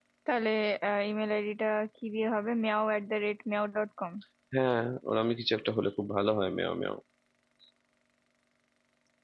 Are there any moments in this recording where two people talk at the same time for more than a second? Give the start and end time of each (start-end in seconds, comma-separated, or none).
none